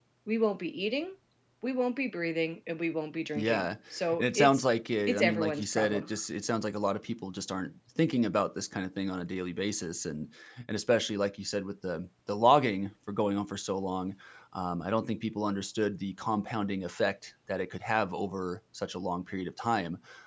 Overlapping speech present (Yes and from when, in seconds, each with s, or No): Yes, from 3.4 s